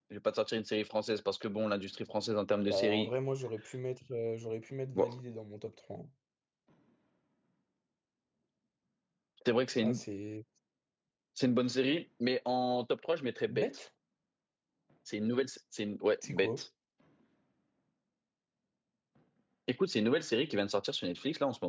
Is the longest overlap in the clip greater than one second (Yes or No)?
No